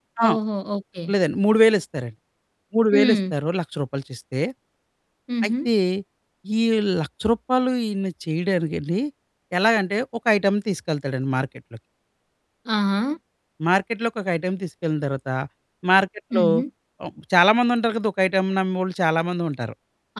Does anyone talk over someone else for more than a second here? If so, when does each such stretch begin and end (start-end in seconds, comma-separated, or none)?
none